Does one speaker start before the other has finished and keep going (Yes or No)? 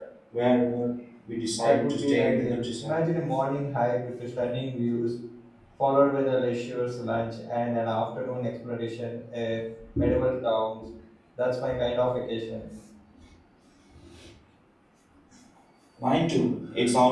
Yes